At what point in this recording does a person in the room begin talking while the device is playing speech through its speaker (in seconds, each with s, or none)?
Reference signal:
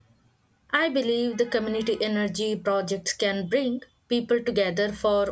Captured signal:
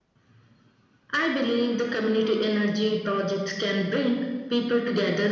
none